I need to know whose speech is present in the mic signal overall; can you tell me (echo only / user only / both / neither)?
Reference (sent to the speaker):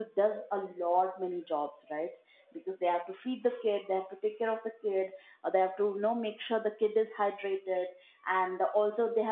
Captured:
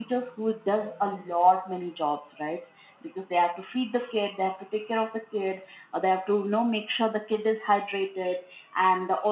echo only